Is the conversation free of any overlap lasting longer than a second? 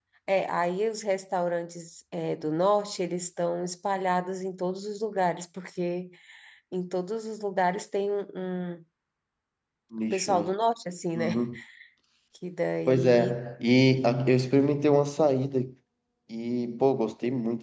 Yes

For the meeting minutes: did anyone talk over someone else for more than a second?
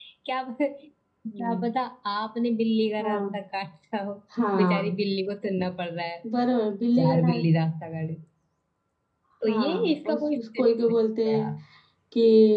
Yes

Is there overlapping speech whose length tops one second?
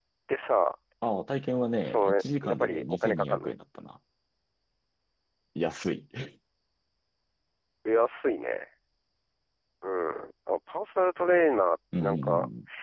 Yes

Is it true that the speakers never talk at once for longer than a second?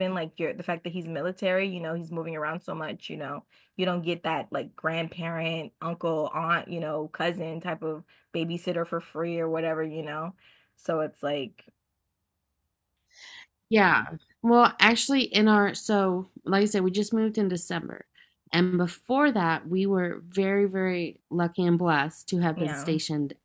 Yes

